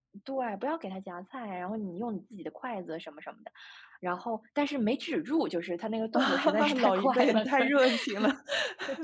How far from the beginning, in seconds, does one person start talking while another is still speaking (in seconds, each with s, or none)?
6.1 s